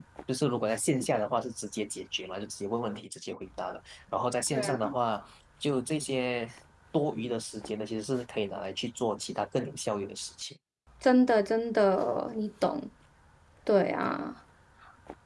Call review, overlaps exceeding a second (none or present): none